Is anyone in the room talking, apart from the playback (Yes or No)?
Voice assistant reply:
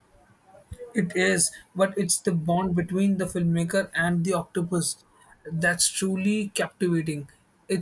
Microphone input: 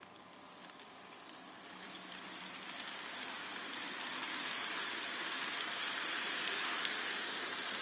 No